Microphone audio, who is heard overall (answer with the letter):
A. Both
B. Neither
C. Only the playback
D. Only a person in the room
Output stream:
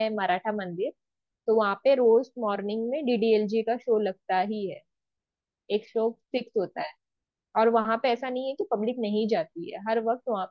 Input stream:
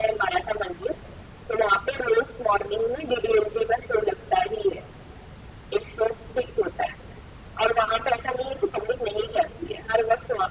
C